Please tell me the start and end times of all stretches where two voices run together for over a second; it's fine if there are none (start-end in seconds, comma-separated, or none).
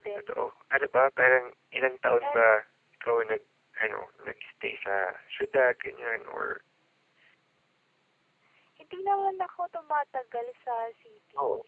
none